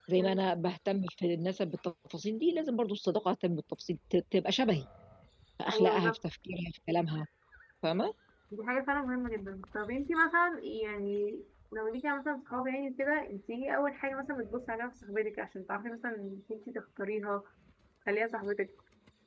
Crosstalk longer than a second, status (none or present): none